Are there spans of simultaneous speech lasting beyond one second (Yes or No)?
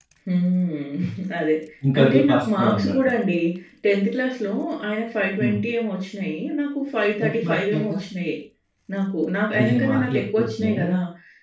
Yes